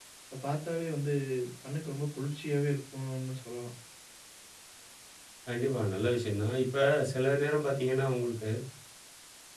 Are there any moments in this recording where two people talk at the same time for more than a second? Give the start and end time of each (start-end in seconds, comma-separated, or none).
none